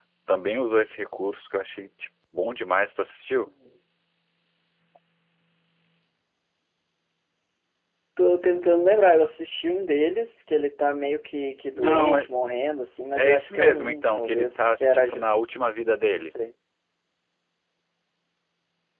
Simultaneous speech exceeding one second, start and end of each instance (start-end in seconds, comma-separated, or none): 13.1-15.3